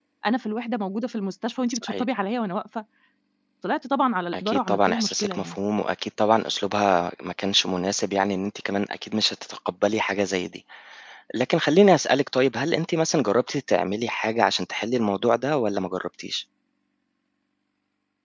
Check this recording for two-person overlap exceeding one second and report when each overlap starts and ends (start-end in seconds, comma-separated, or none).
4.3-5.6